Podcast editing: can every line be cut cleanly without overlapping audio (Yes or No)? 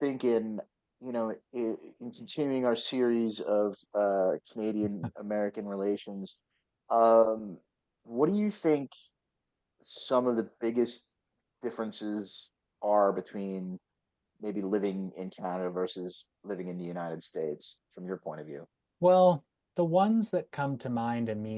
Yes